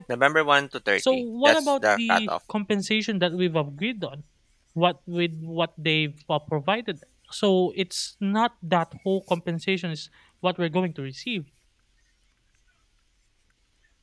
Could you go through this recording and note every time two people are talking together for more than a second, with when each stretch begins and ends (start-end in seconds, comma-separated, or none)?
1.0-2.3